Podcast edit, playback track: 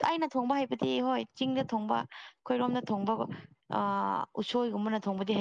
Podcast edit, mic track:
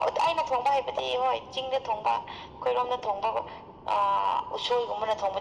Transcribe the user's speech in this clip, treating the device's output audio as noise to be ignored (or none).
none